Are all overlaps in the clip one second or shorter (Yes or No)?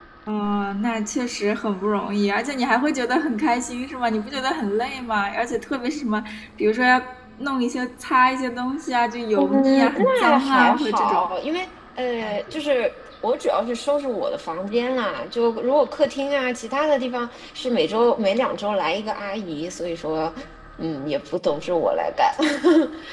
No